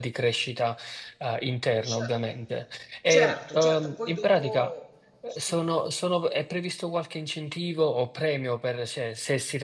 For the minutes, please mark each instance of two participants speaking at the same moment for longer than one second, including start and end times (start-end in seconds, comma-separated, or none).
3.1-4.7